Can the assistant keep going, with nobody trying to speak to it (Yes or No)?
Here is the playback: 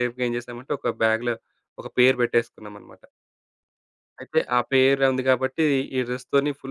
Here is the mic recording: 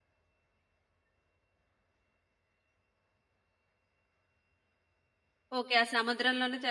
No